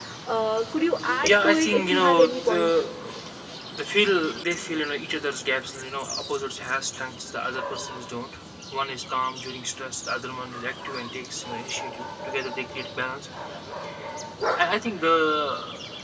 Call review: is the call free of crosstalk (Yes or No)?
No